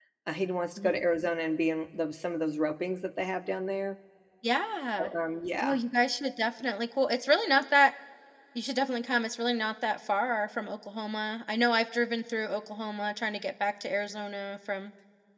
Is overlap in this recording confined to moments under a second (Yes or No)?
Yes